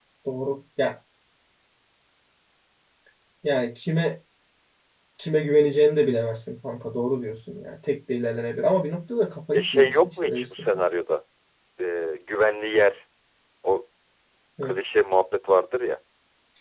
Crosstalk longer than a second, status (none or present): present